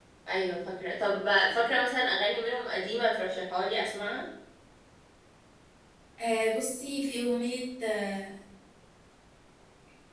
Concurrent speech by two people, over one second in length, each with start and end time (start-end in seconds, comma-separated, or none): none